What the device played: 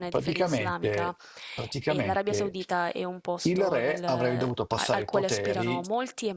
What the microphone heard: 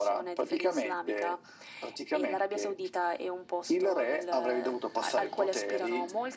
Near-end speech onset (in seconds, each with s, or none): none